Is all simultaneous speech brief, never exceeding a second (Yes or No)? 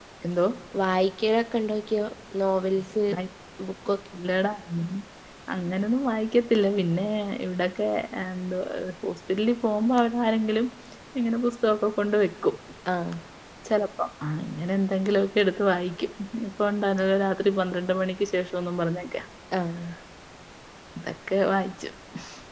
Yes